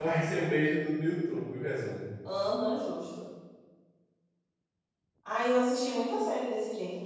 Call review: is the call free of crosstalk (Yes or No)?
Yes